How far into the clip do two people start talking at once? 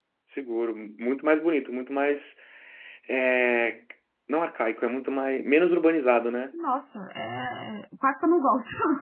none

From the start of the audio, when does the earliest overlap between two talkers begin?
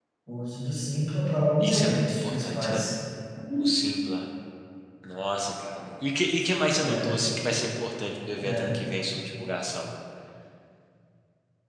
2 s

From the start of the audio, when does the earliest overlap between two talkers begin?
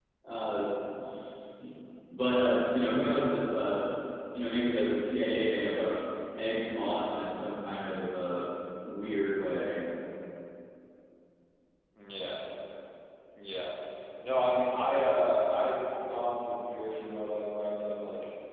none

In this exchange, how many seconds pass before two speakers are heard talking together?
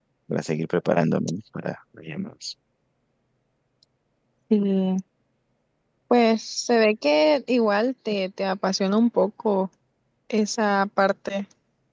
none

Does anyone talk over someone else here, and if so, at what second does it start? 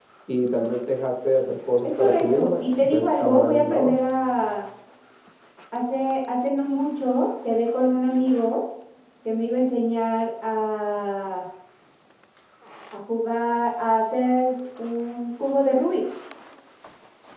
2 s

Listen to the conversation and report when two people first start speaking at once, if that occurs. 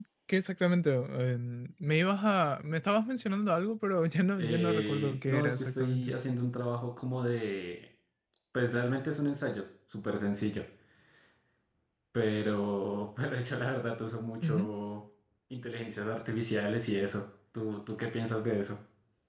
4 s

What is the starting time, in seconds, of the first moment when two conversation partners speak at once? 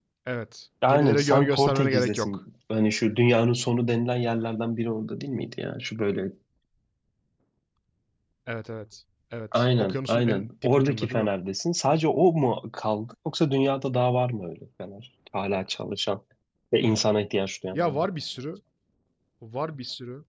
1 s

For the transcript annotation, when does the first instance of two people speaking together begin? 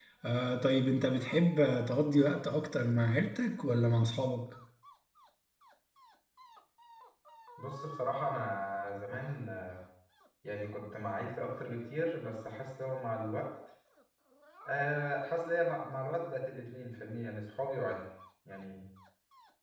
none

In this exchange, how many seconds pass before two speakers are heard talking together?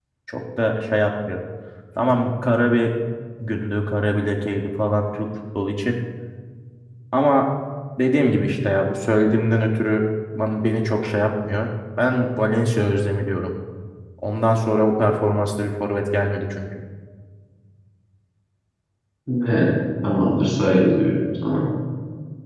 none

